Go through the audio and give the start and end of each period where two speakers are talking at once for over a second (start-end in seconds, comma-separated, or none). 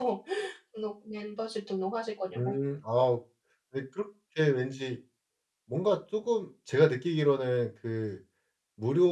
none